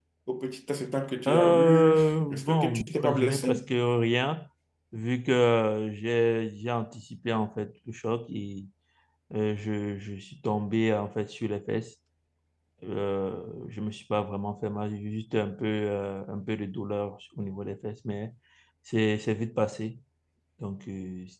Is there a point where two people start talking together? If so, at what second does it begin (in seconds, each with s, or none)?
1.3 s